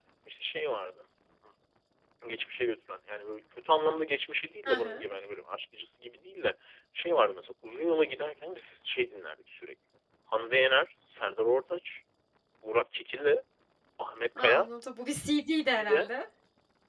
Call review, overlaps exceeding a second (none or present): none